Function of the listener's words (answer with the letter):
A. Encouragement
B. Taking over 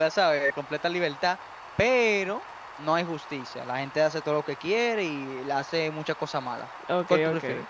B